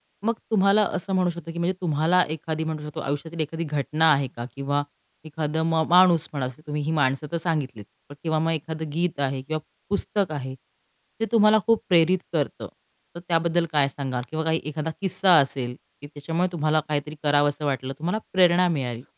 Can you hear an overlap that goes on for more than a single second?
No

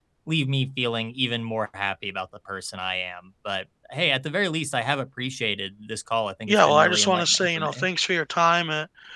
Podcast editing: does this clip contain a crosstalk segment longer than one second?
Yes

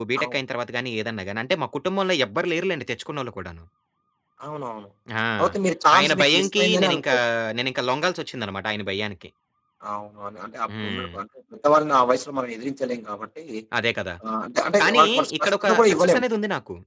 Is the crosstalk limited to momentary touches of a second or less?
No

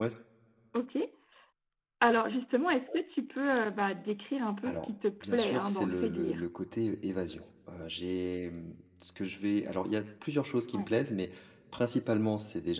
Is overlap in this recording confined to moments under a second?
No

